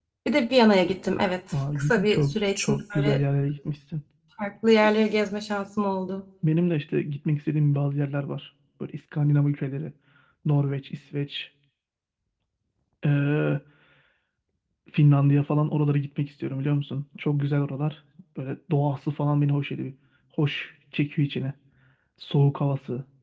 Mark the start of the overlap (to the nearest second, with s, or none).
2 s